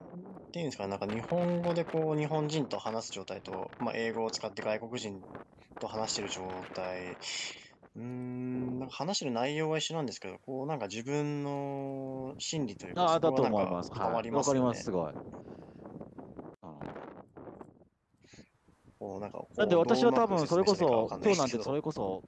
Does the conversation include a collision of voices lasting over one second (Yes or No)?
Yes